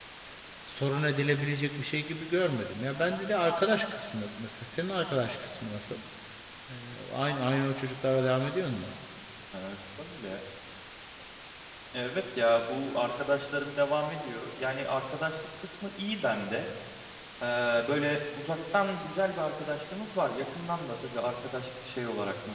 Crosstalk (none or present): none